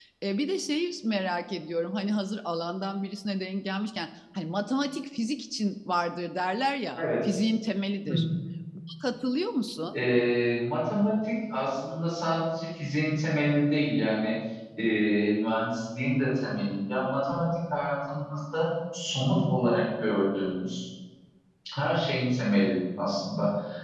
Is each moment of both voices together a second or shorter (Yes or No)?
Yes